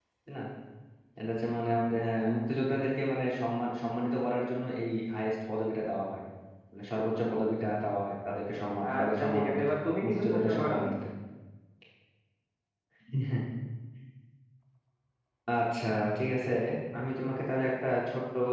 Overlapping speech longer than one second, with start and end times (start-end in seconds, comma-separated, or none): 9.0-10.8